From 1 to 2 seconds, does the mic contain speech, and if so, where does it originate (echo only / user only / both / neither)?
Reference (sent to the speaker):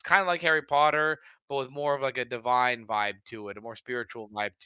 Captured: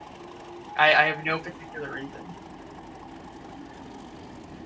user only